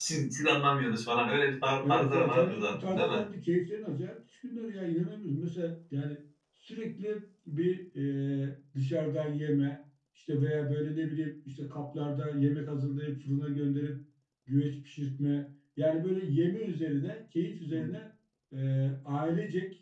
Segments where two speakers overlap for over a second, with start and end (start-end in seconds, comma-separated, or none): 1.8-3.2